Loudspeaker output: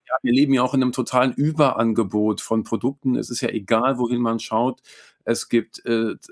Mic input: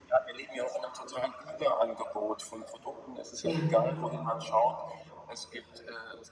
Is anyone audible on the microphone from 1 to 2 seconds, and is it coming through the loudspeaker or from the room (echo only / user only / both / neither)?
echo only